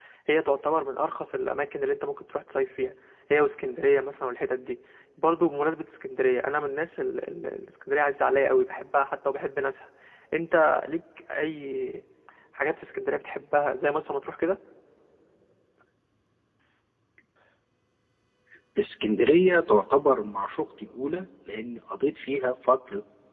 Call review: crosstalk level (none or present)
none